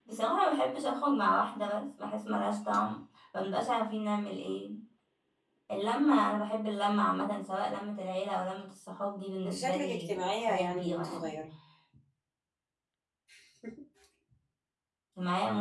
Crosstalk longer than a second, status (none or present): present